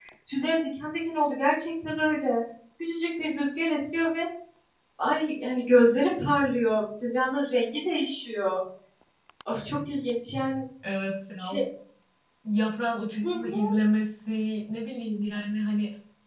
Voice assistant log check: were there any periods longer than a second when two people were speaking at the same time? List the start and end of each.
none

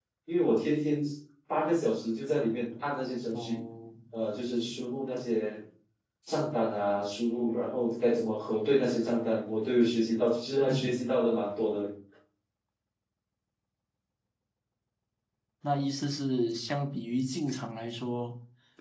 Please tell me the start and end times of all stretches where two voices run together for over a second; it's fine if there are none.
none

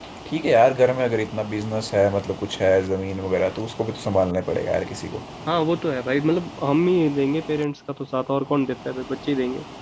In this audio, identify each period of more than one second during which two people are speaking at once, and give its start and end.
none

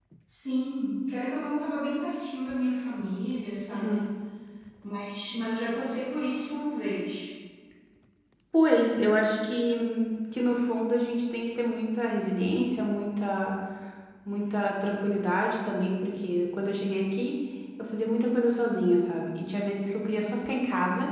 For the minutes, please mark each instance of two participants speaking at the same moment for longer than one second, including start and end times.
none

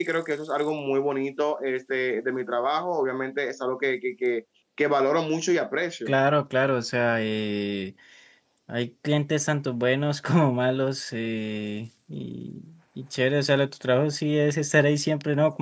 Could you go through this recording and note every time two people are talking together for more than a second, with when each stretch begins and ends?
none

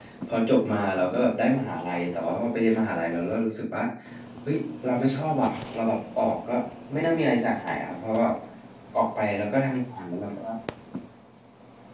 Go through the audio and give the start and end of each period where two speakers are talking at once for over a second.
none

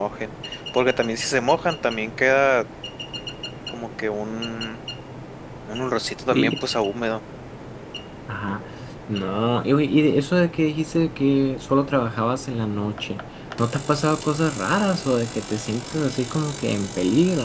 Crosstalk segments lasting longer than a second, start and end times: none

